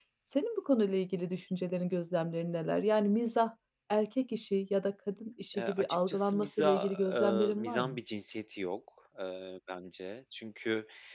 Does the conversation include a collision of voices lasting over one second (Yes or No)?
Yes